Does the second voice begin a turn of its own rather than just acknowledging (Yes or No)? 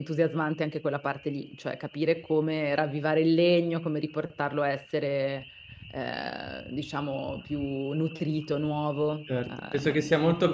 Yes